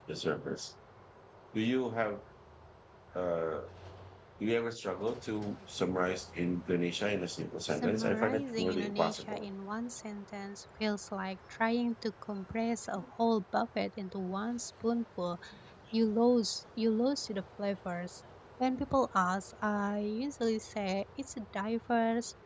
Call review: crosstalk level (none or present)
present